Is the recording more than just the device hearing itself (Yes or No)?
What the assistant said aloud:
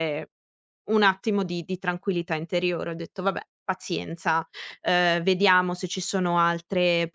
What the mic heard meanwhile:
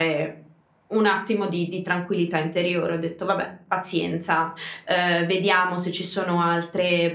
No